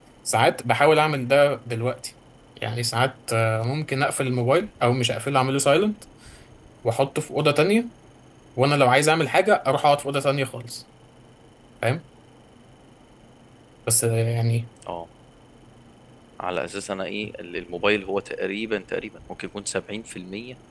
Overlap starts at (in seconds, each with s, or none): none